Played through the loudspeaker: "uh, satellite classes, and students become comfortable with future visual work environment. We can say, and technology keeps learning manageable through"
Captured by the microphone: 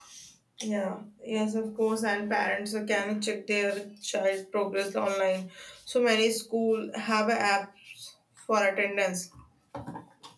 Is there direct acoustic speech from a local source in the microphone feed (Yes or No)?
Yes